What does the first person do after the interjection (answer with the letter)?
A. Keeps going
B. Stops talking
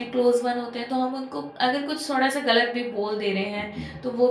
A